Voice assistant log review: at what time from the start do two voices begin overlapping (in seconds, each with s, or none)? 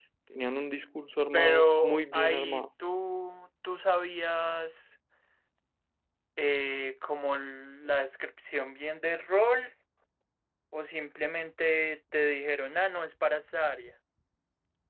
1.3 s